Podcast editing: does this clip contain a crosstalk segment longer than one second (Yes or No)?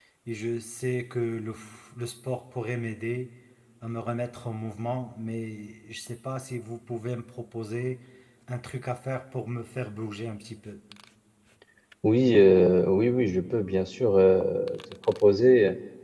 No